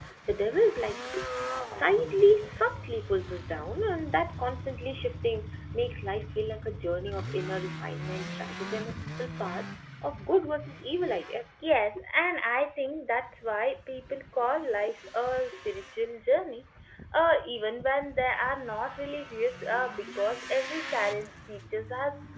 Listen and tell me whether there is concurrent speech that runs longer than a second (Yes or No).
No